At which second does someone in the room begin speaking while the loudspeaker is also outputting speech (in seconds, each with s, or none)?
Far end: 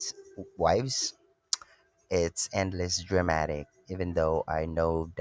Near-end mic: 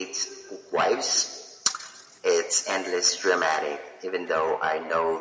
none